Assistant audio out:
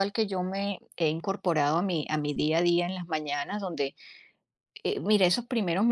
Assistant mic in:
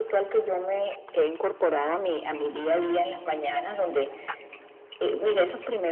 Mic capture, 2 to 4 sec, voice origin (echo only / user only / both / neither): echo only